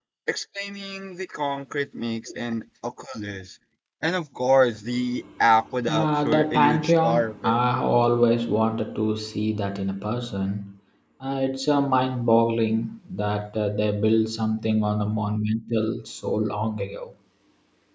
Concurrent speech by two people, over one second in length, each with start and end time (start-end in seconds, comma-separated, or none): 5.9-7.6